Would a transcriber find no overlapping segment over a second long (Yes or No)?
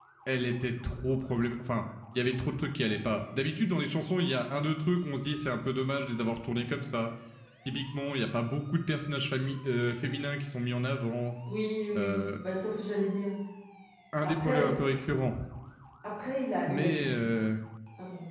Yes